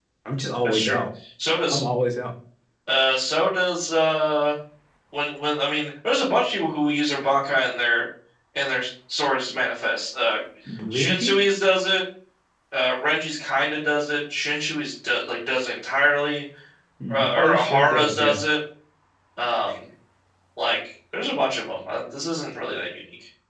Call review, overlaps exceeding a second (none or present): present